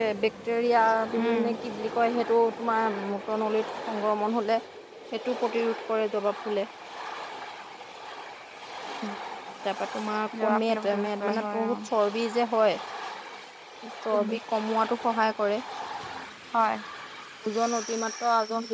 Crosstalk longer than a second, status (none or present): present